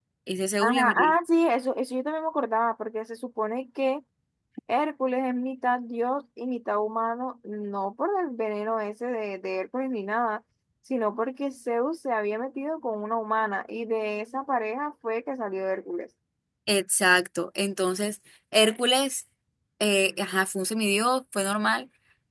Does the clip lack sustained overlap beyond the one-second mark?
Yes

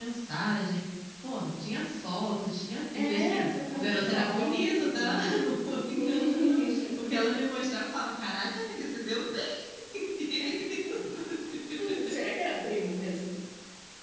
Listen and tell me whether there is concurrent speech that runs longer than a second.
Yes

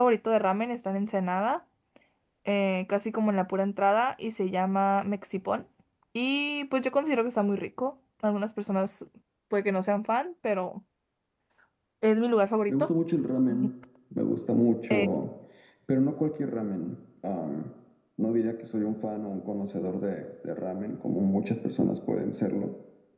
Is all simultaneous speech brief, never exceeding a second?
Yes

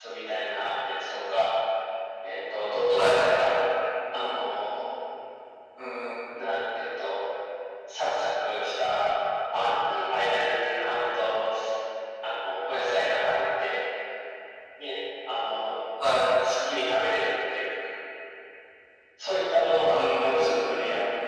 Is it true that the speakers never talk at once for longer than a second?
No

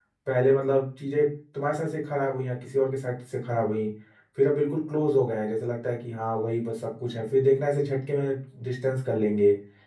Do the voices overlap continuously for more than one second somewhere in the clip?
No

